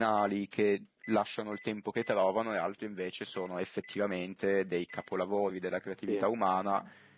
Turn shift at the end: No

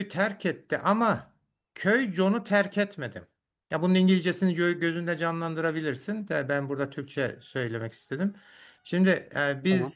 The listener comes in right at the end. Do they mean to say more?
No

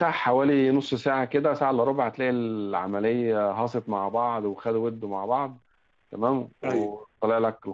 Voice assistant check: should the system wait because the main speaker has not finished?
Yes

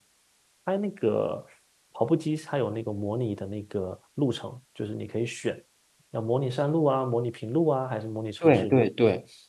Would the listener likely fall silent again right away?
No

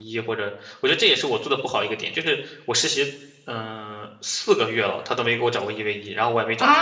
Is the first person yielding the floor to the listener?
Yes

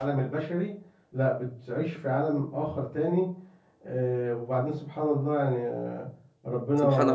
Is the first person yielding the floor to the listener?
No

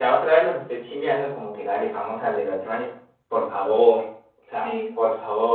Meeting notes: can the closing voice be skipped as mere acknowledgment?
Yes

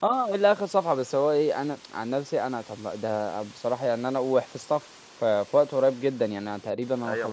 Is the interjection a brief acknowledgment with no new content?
No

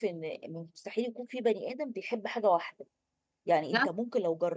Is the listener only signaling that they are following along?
Yes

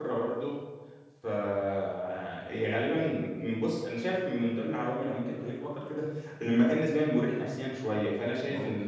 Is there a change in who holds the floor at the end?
No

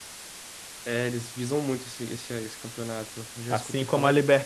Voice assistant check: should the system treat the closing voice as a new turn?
Yes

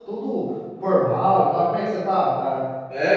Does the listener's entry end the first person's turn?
Yes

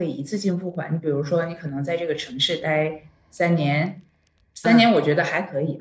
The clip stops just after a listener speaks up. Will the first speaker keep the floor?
Yes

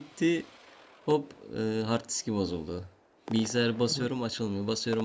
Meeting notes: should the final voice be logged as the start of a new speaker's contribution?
No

